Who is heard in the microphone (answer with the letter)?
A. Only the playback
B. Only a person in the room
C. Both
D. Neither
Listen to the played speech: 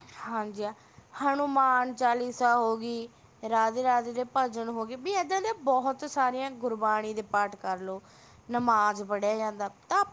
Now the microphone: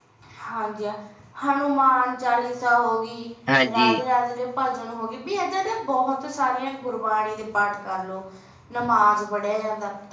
C